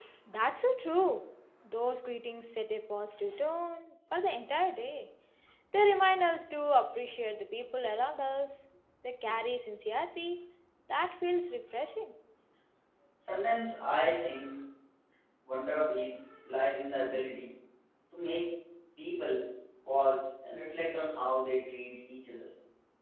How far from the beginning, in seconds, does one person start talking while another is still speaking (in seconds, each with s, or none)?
none